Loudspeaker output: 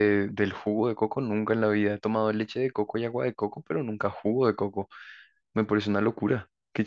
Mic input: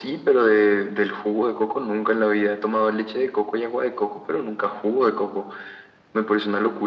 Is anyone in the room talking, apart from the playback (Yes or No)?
No